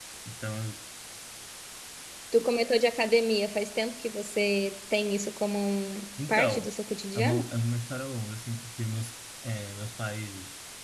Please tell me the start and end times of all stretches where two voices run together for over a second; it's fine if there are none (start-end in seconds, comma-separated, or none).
none